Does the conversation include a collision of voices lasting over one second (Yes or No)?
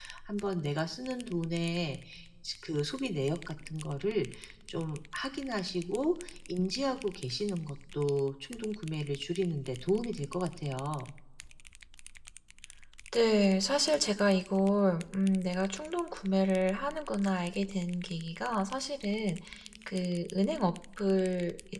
No